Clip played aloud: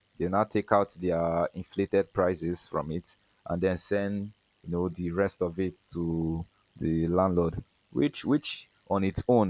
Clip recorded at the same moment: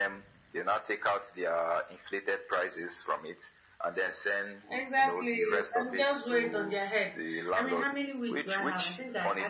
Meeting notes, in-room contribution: present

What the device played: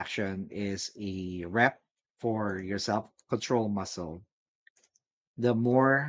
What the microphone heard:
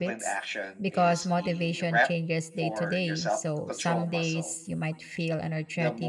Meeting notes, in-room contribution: present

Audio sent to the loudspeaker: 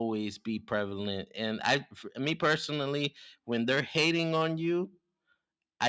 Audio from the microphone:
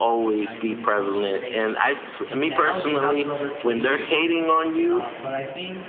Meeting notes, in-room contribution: present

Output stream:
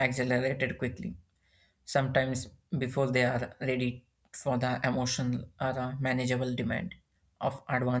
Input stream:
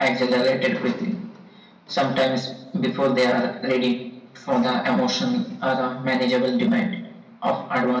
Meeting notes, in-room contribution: none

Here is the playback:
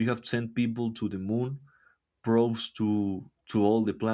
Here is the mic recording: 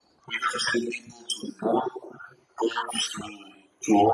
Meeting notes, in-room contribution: none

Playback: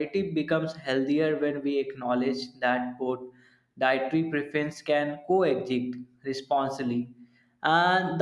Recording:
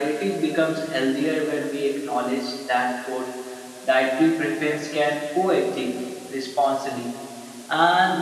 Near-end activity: none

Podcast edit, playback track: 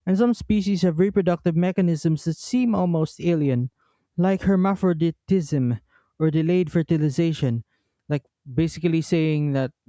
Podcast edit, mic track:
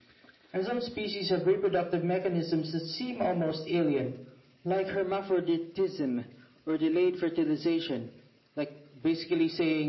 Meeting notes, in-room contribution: none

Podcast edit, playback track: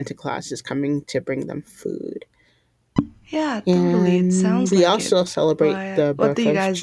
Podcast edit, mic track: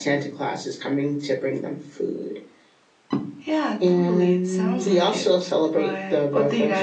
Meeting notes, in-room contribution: none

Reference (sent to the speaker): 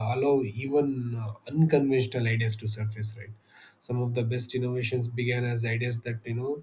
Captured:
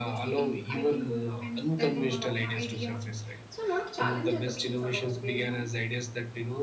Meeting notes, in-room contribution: present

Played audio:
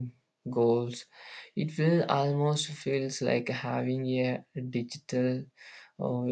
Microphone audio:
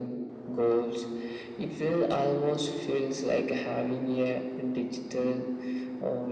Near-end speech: none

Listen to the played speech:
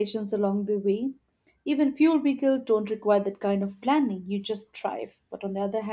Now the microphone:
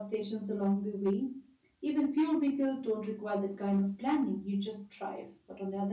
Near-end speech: none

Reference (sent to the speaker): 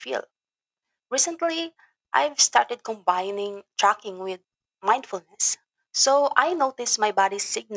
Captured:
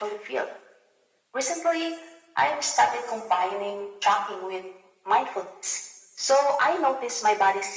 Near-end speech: none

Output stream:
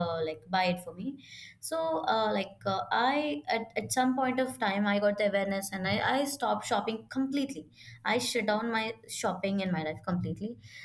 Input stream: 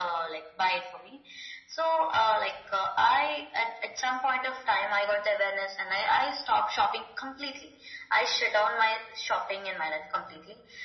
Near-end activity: none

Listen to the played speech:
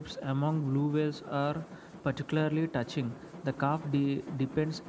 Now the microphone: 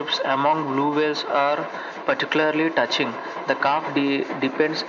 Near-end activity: none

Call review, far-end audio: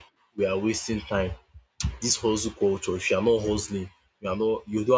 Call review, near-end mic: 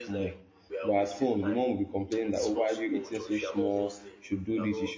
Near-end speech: present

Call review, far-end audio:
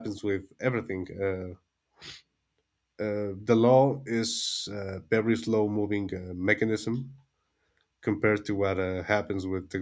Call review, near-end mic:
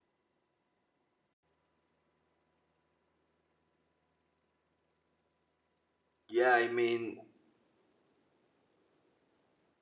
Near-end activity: present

